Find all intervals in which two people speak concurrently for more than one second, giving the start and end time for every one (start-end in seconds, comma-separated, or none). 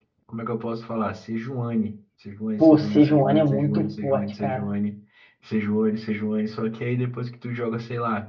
2.6-4.7